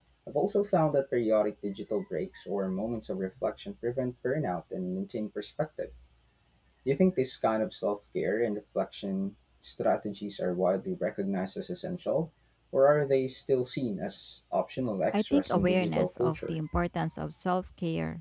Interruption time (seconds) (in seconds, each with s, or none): 15.1 s